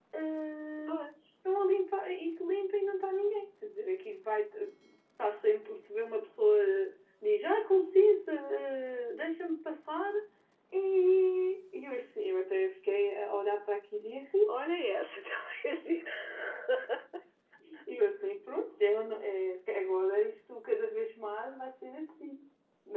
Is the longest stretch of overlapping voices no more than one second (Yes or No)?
Yes